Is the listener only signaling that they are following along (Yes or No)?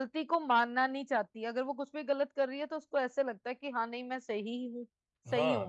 No